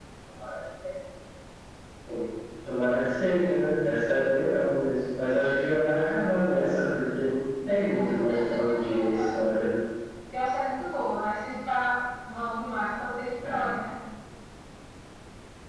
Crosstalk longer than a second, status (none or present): present